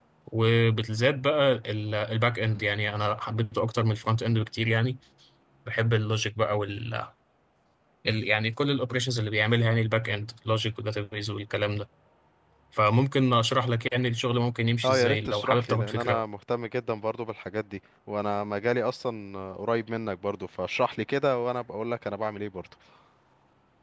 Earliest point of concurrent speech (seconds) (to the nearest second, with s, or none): 15 s